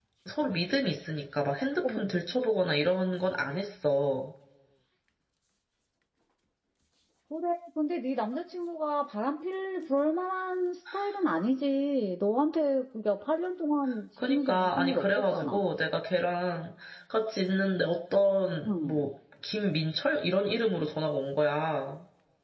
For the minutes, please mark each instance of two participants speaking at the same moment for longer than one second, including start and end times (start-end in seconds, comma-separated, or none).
14.3-15.6